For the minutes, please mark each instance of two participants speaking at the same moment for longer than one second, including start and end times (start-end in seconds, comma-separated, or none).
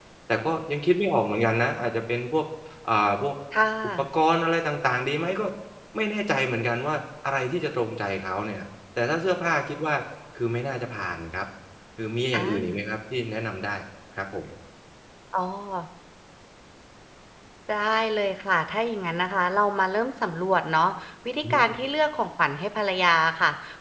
none